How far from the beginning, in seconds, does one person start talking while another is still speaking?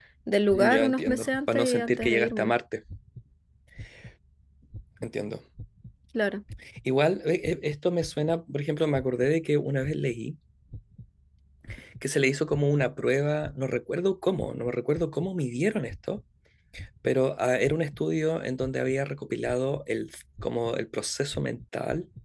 0.5 s

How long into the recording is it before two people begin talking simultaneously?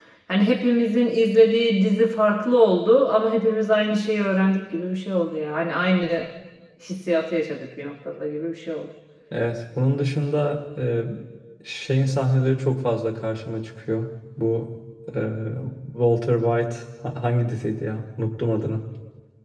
none

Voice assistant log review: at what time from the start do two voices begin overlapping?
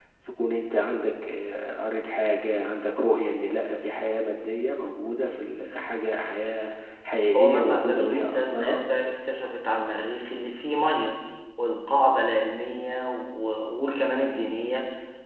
7.3 s

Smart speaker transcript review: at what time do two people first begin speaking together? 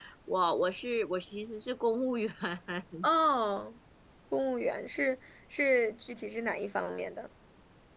none

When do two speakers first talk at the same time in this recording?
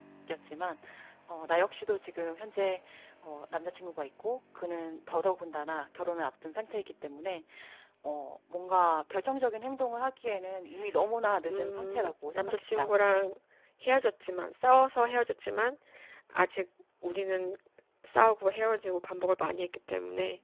11.5 s

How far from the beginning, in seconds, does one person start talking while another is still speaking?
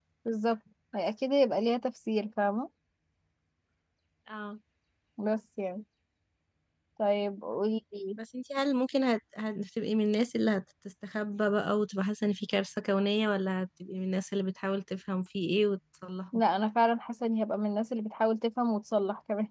none

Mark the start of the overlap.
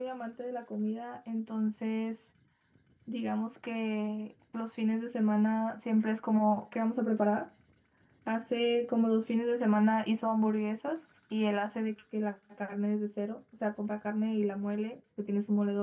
none

